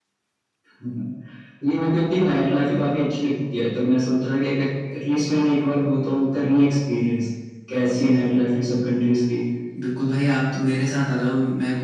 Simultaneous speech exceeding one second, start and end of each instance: none

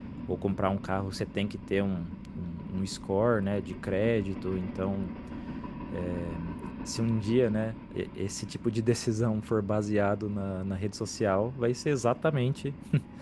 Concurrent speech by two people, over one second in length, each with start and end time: none

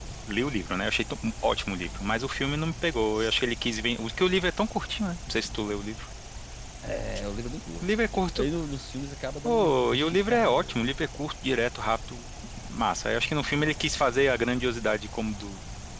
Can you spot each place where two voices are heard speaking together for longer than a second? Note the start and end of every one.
9.4-10.8

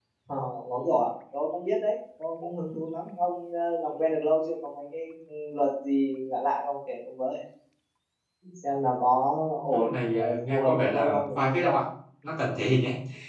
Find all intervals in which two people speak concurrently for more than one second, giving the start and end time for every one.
9.7-11.8

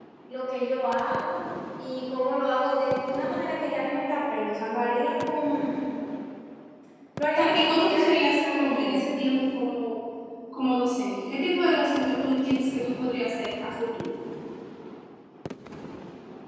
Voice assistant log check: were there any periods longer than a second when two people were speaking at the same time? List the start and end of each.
7.4-9.1

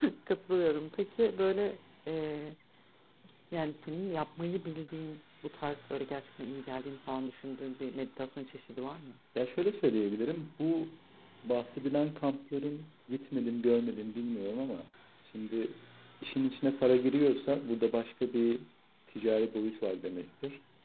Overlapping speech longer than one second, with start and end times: none

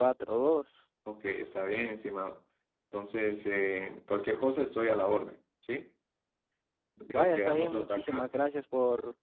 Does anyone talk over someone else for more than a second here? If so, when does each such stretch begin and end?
7.1-8.3

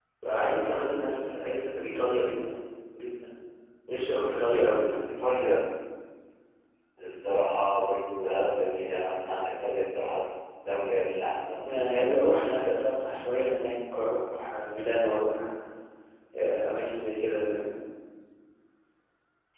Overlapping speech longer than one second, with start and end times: none

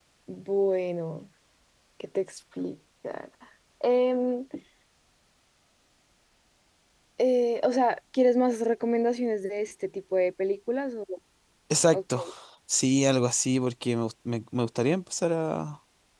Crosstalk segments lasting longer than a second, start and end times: none

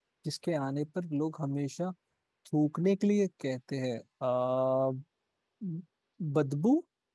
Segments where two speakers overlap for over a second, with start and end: none

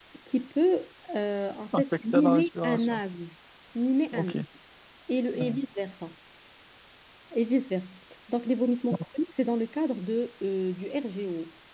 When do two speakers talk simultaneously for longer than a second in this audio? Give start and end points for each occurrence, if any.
1.8-3.0

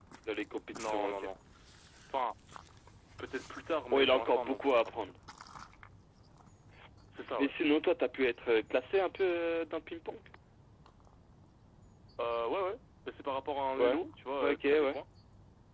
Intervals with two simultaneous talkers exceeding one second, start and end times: 3.9-5.2

